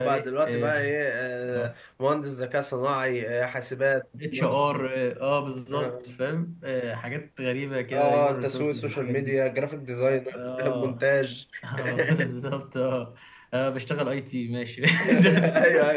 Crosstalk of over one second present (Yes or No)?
Yes